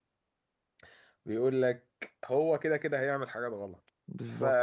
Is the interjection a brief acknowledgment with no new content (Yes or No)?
Yes